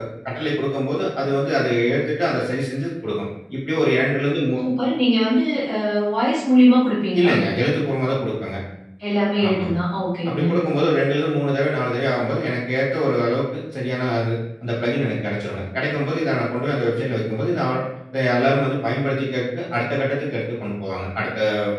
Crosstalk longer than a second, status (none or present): none